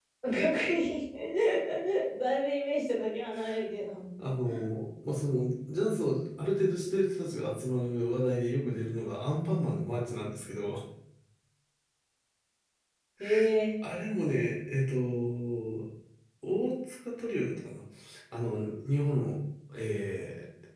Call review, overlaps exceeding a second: none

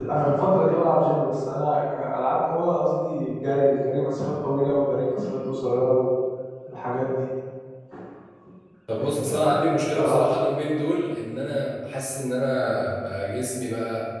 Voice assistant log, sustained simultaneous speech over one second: present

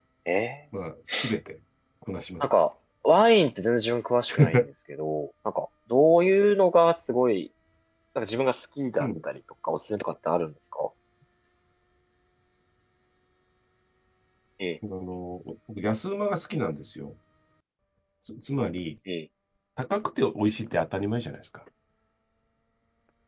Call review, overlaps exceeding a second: none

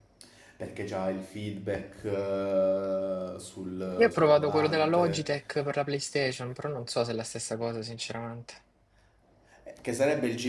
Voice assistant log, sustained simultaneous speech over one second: present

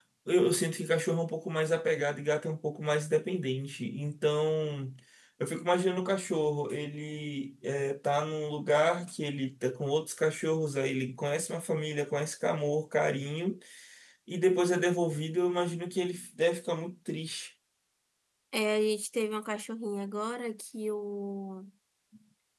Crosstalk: none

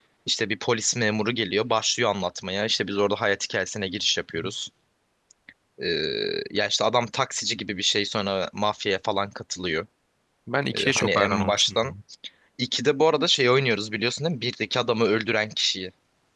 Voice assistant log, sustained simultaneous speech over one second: present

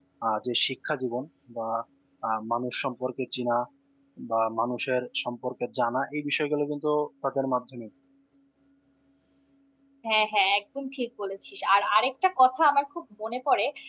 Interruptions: none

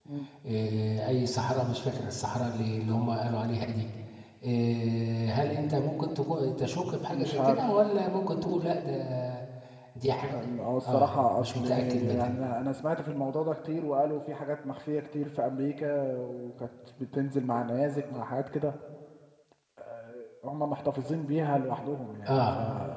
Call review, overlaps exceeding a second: present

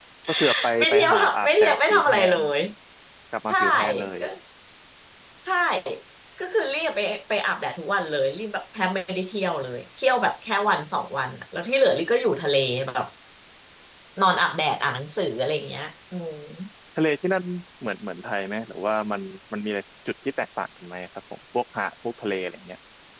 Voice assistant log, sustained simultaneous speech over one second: present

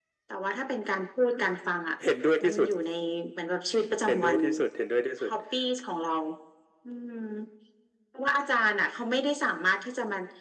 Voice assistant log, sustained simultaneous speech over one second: none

